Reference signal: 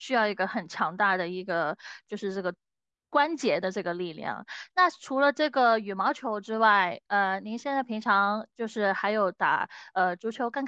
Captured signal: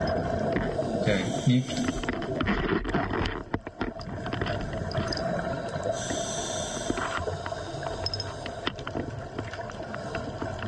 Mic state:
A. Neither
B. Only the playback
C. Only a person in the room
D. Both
C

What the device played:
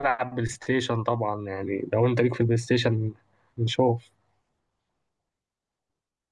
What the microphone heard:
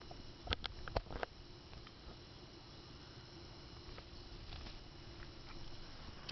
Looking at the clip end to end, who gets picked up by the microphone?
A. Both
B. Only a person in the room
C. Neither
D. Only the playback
C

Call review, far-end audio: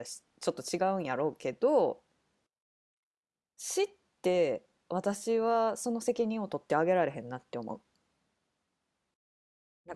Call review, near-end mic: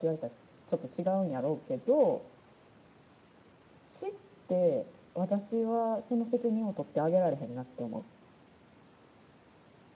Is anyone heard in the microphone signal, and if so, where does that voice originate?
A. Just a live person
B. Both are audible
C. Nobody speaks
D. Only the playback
D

